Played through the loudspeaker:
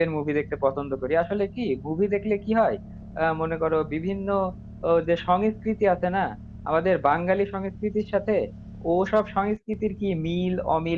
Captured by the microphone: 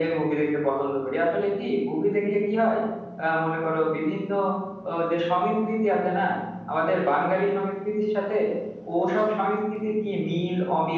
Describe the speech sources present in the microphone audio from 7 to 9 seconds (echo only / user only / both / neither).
echo only